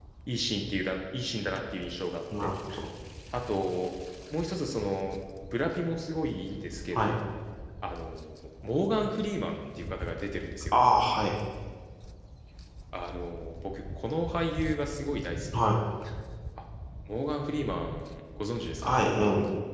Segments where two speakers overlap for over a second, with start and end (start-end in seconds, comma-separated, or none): none